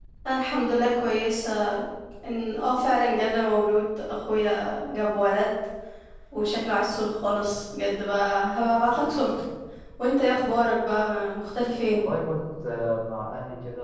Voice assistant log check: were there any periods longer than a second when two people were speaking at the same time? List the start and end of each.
none

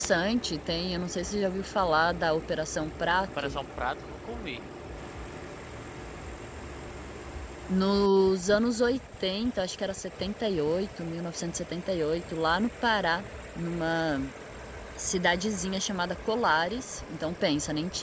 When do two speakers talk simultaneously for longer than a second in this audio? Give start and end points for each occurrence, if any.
none

